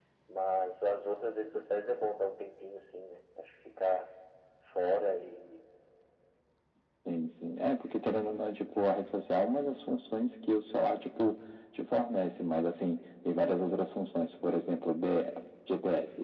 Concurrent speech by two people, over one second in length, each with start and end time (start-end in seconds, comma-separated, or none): none